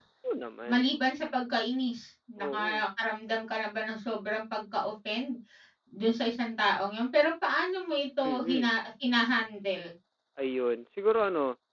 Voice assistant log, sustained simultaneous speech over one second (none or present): none